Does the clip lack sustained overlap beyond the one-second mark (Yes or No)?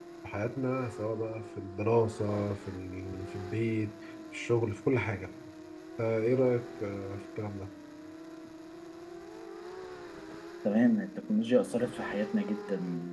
Yes